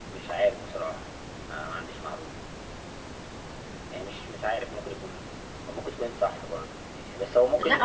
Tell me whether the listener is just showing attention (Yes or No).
No